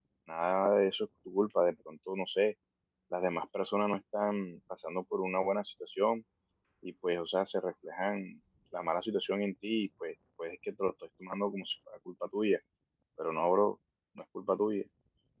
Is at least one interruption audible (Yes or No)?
No